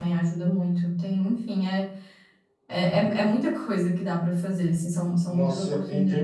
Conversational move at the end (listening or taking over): taking over